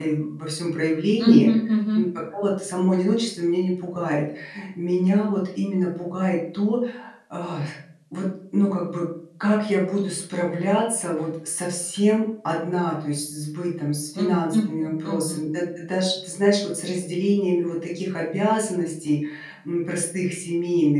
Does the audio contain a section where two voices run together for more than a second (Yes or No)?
Yes